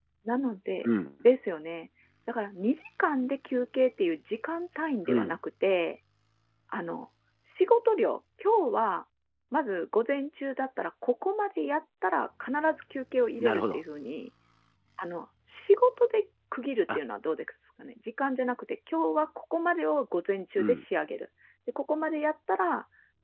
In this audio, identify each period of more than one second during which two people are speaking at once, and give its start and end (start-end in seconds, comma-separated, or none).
none